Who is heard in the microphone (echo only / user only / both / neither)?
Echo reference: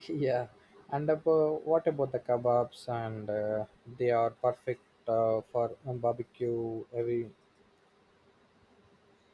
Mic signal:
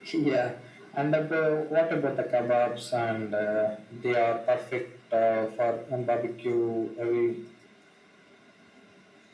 echo only